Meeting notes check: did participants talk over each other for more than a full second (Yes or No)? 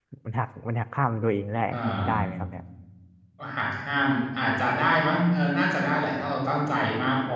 No